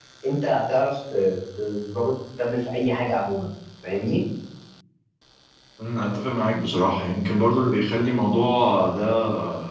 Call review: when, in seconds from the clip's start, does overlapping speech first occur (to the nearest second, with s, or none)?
none